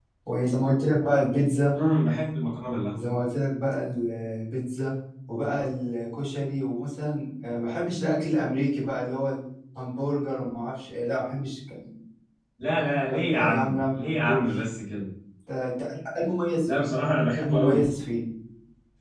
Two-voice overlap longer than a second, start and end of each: 13.1-14.6

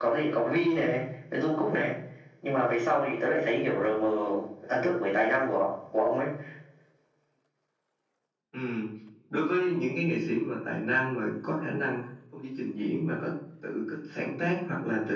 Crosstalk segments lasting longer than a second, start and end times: none

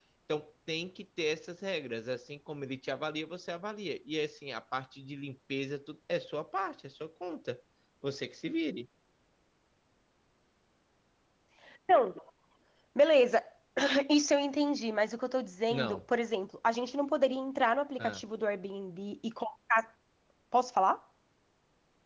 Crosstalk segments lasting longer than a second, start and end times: none

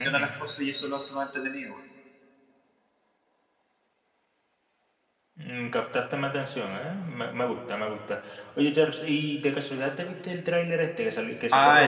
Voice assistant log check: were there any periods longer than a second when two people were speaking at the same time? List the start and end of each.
none

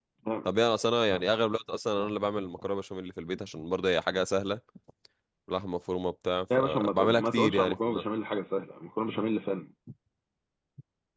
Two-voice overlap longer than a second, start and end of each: 6.6-7.8

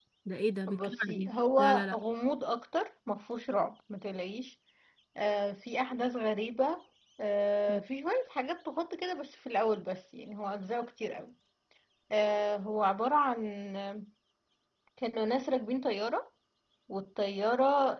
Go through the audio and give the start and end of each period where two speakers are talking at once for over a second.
0.7-2.0

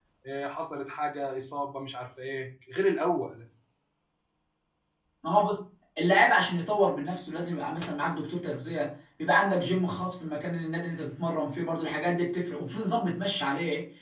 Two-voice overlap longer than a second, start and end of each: none

